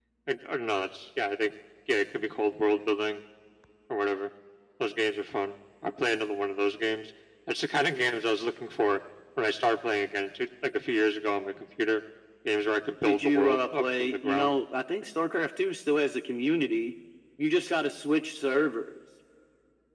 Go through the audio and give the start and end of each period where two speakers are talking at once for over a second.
13.0-14.5

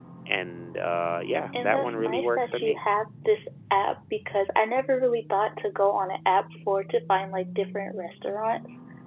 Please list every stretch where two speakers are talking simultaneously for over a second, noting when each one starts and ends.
1.6-2.8

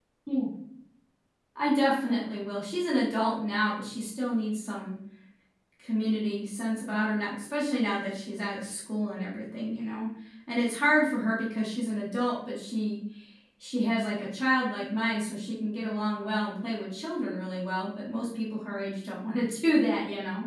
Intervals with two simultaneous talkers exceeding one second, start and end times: none

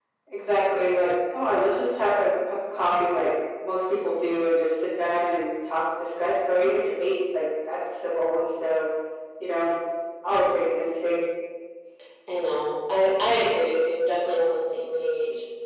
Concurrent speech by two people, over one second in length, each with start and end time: none

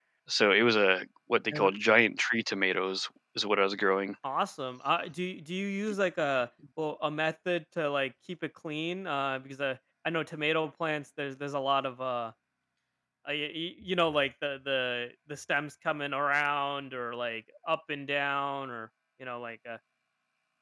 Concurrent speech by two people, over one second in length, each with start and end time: none

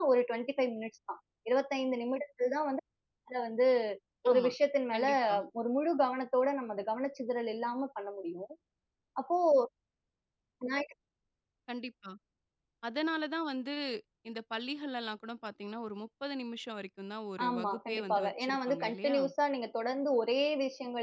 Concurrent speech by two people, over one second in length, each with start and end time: 17.5-19.2

